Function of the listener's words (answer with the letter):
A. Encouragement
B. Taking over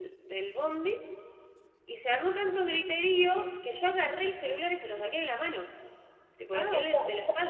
B